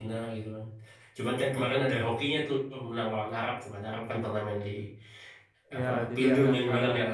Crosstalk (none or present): present